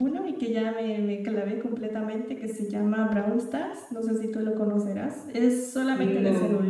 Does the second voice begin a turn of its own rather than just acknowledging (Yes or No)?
No